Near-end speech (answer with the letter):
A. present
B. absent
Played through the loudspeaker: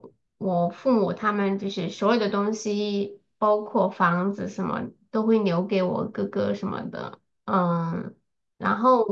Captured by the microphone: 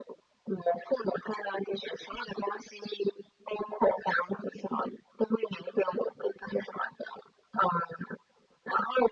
B